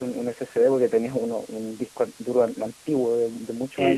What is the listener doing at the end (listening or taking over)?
taking over